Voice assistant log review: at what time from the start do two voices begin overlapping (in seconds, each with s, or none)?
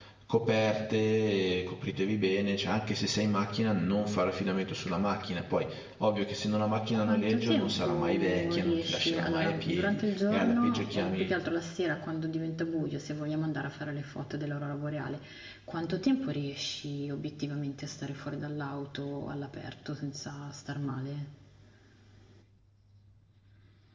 6.9 s